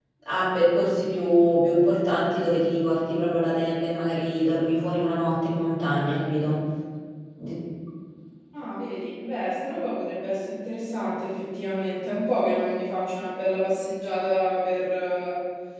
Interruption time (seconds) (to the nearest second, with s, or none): none